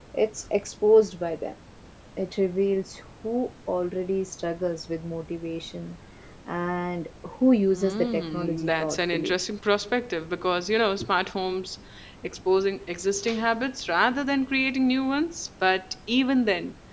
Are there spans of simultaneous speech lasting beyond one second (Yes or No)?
Yes